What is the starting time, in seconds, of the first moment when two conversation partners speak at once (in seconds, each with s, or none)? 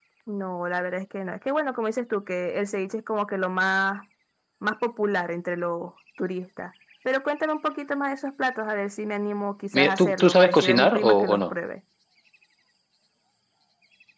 9.7 s